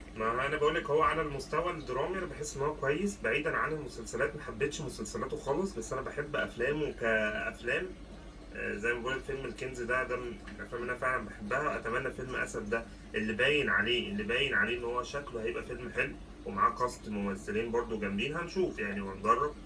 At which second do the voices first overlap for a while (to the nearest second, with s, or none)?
none